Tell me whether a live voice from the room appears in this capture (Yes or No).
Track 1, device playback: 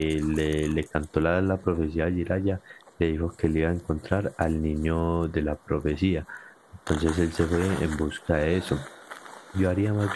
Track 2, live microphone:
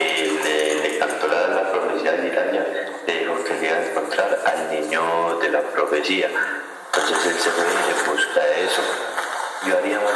No